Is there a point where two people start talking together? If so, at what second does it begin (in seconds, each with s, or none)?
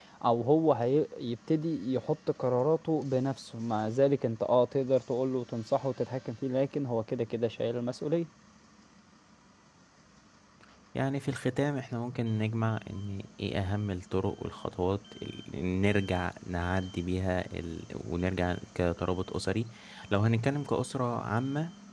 none